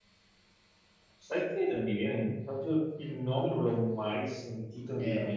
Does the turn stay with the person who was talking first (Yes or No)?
No